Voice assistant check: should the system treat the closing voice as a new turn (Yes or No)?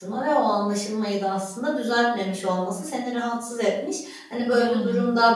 No